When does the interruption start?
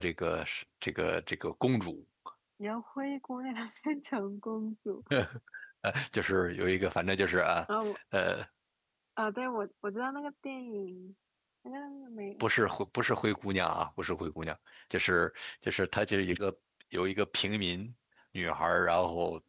none

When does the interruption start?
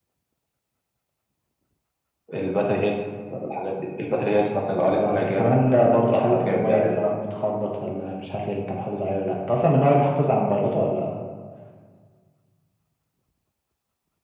4.9 s

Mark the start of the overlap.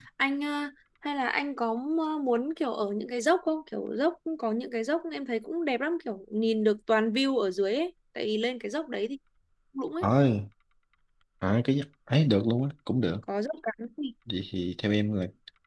none

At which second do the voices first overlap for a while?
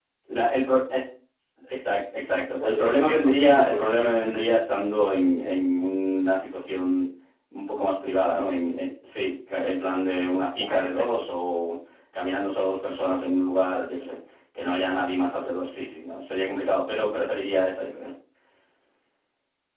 2.6 s

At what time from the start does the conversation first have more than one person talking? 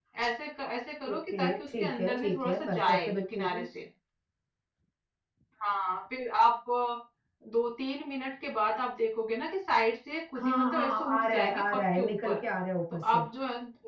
1.1 s

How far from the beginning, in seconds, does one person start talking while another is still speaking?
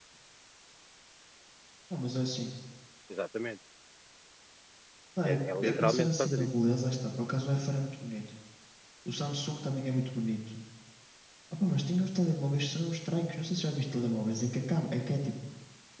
5.2 s

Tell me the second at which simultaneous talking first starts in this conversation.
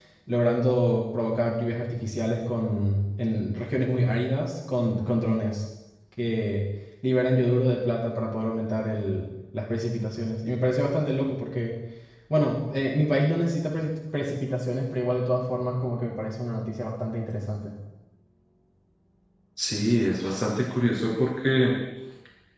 none

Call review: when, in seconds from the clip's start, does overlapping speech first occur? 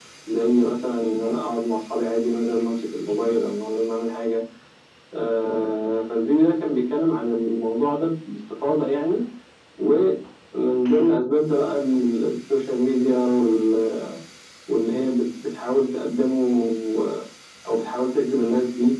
none

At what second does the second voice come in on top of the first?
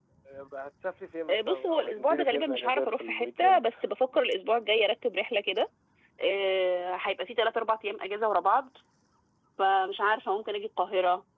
1.3 s

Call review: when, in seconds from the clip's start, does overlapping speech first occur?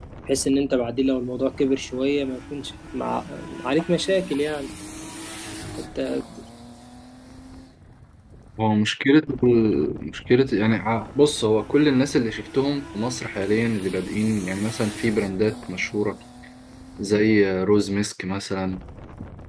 none

